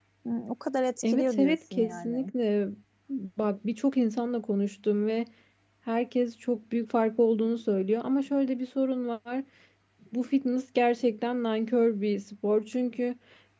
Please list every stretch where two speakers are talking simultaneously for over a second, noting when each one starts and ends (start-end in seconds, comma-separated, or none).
1.0-2.3